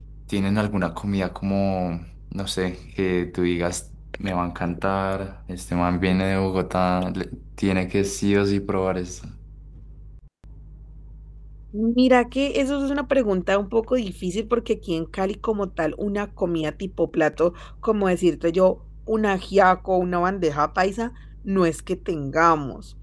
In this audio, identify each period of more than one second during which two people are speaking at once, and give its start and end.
none

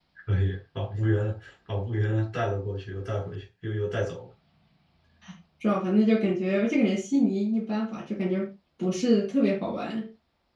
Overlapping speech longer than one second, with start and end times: none

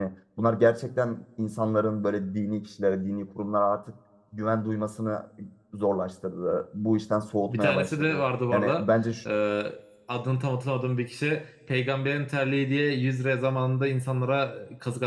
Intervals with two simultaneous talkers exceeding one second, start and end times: 7.5-8.8

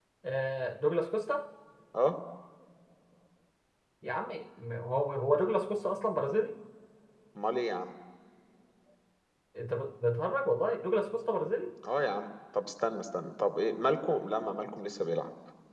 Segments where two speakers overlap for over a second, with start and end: none

